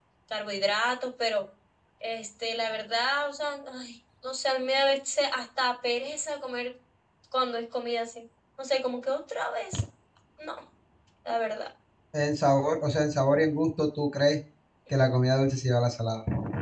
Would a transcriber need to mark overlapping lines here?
No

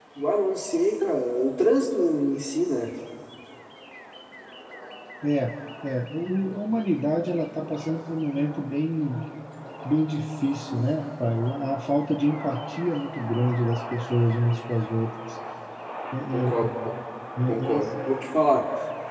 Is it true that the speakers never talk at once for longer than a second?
Yes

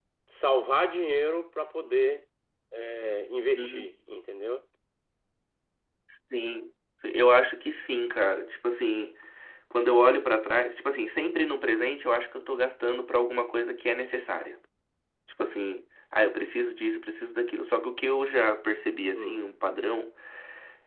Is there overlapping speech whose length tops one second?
No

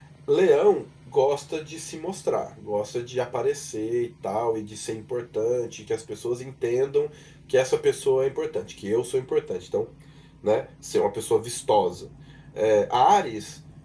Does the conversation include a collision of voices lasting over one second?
No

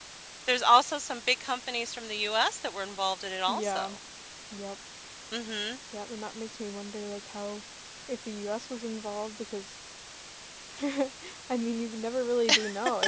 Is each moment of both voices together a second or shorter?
Yes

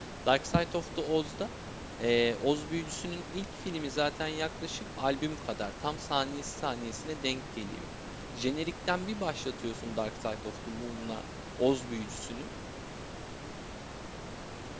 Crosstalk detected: No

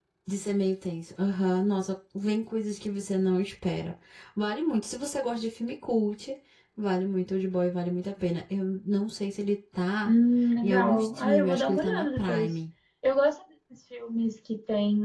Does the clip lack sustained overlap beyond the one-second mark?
No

